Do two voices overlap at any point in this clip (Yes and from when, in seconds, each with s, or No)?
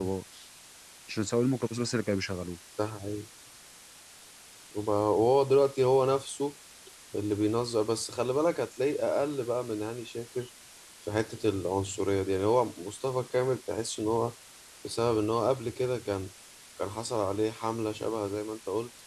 No